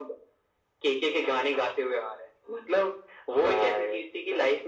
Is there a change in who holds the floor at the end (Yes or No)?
No